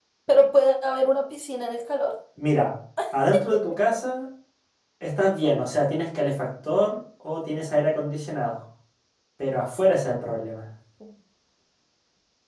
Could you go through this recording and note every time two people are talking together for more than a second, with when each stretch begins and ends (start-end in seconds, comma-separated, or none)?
none